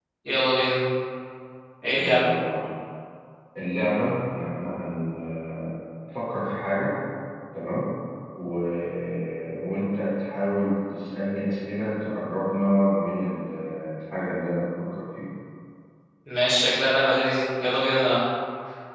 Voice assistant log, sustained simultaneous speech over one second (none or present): none